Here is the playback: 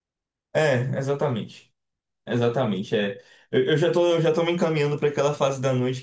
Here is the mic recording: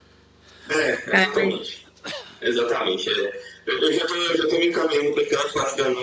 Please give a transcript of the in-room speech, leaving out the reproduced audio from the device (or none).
Ah, mas